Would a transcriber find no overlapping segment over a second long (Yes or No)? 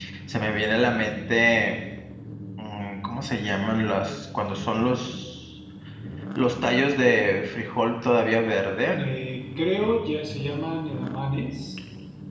Yes